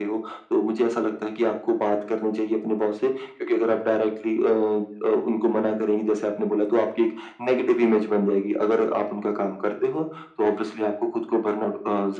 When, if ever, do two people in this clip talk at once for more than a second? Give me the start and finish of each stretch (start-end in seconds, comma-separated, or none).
none